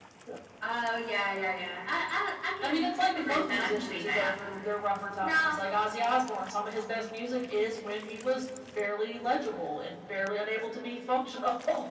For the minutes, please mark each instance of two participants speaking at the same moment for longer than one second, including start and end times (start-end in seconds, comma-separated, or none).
2.6-4.3